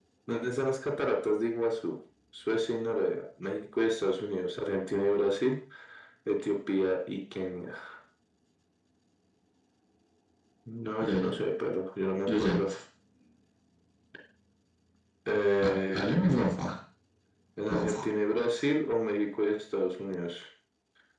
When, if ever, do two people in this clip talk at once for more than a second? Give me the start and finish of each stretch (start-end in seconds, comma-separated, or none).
none